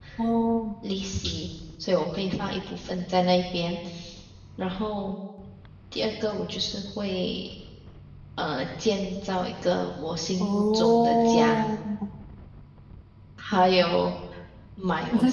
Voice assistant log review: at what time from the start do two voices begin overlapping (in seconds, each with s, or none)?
10.4 s